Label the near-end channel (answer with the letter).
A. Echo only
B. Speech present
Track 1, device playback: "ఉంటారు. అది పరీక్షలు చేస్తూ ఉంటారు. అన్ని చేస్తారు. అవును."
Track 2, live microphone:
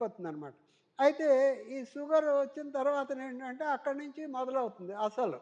B